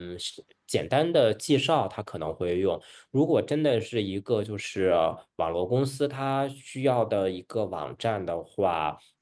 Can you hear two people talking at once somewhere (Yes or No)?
No